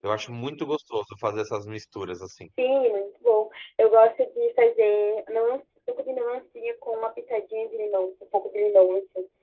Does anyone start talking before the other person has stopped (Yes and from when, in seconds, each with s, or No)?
No